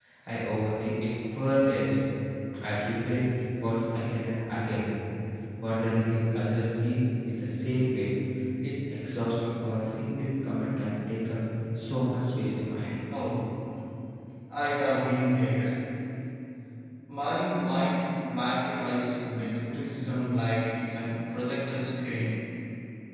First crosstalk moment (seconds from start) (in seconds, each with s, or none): none